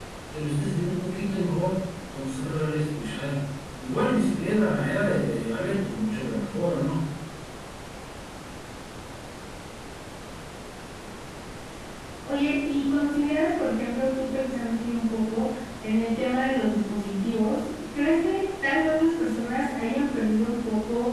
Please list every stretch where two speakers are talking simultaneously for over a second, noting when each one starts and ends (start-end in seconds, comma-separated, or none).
none